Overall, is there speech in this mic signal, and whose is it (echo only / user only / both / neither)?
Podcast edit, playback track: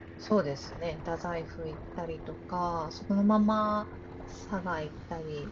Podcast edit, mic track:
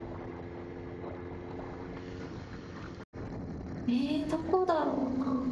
user only